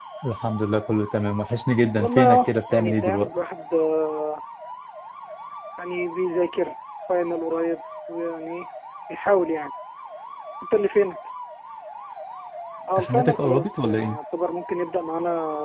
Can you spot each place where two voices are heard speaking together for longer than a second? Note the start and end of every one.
2.0-3.3, 13.0-14.2

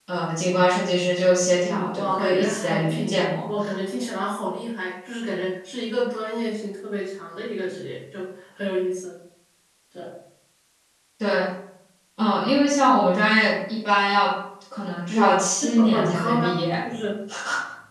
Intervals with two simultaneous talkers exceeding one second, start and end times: 1.6-3.5, 15.1-16.9

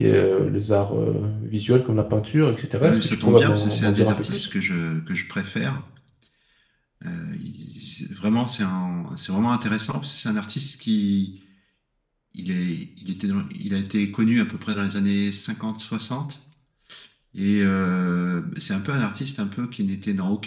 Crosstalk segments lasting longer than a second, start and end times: 2.8-4.5

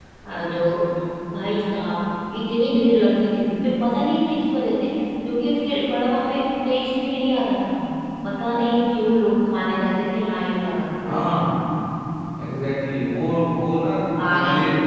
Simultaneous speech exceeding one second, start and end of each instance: none

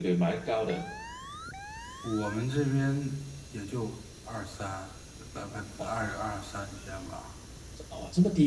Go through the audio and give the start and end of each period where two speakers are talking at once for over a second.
none

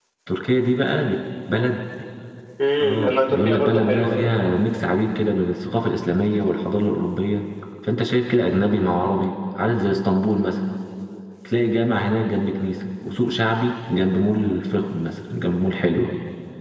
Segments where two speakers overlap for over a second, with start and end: 2.8-4.2

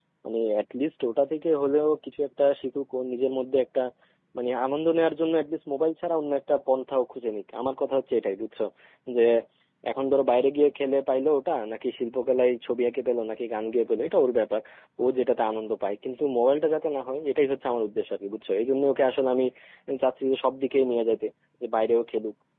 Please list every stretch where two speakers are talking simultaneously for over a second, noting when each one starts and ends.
none

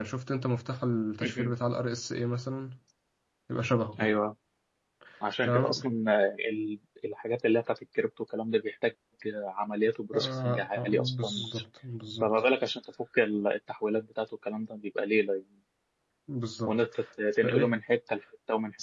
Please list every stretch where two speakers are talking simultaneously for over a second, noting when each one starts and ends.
10.1-11.4

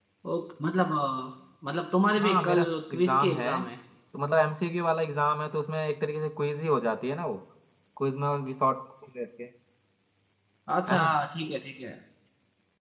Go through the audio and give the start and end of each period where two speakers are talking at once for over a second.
2.2-3.5

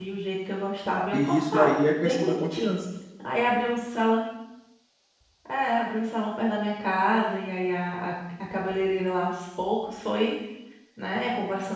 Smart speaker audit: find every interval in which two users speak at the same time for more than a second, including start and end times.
1.1-2.8

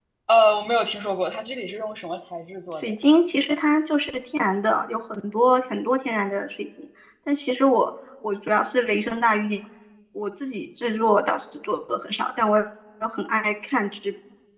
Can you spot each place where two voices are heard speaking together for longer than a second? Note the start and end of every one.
none

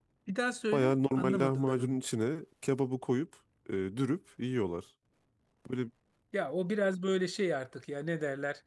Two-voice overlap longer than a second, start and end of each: 0.7-2.0

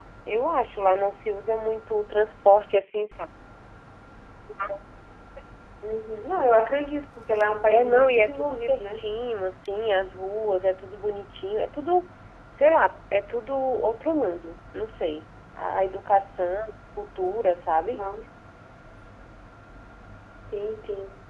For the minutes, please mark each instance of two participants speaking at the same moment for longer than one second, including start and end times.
7.7-9.0

